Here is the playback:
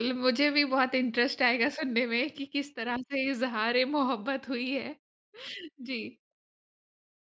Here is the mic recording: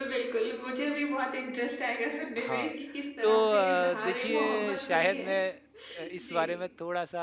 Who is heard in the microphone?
both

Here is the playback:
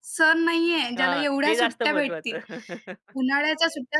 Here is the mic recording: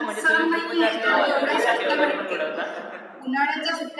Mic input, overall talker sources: both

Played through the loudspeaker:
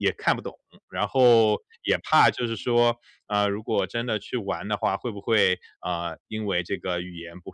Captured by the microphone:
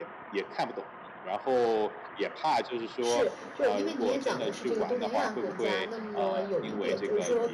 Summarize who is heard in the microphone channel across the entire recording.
both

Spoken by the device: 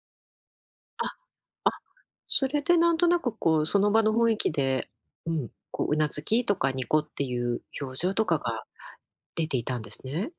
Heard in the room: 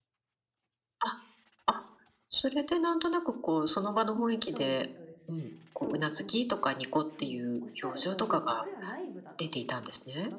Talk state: both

